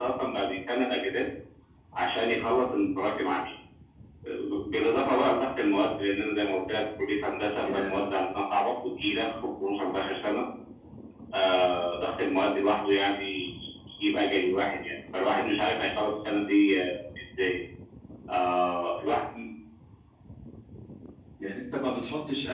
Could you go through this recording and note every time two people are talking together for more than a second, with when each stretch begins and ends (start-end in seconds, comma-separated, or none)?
none